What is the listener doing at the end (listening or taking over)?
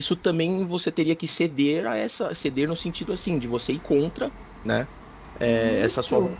listening